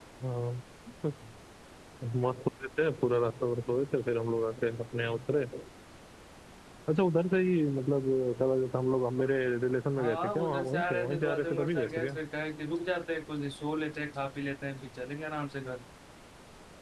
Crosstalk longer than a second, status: present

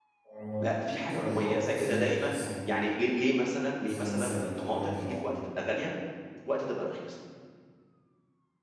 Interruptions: present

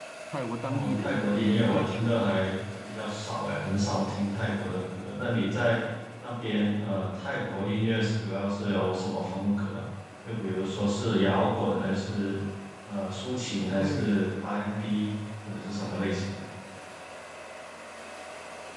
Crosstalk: present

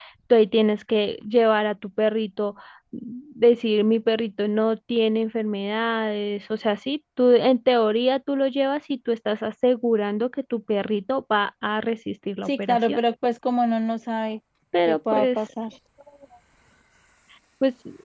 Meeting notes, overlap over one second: none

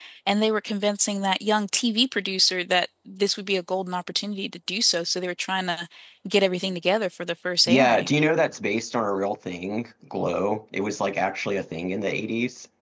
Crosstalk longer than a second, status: none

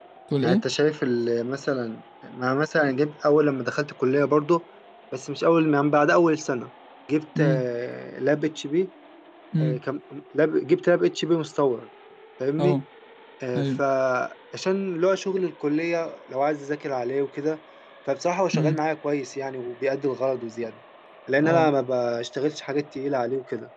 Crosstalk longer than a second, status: none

